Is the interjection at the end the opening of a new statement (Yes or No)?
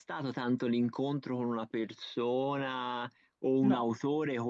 No